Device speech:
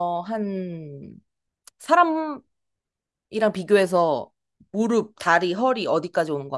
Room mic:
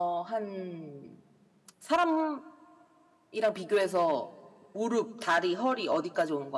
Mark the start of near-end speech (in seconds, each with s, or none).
none